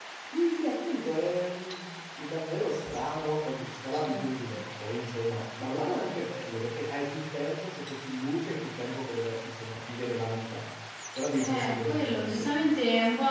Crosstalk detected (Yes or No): Yes